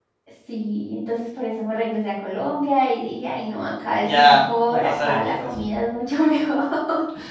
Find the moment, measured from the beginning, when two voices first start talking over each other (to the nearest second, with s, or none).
4 s